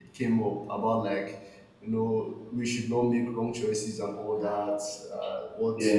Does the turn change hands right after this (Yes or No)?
No